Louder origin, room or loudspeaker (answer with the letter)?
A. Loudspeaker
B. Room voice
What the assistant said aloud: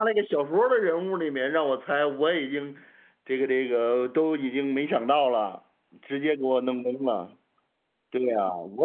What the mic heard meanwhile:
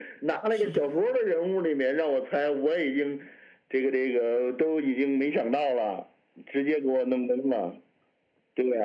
A